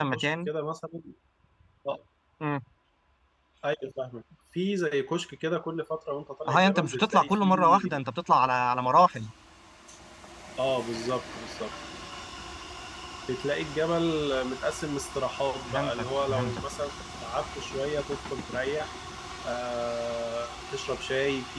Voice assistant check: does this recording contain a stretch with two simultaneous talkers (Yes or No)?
Yes